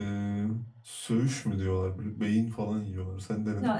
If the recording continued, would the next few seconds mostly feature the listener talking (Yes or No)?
Yes